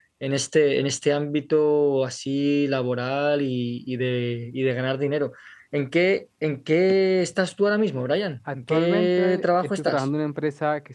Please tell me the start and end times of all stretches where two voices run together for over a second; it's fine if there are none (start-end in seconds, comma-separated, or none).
8.5-10.0